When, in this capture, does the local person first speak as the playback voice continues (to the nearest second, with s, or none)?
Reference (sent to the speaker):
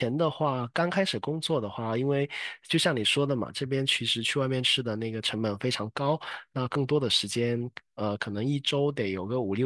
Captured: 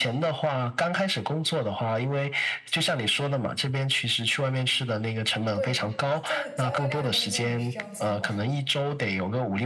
6 s